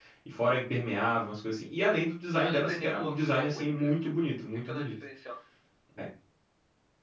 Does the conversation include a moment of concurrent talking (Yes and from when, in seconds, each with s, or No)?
Yes, from 2.4 s